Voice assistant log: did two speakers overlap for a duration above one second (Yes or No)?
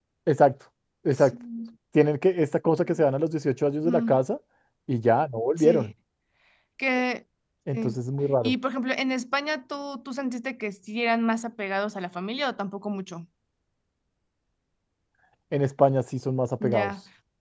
No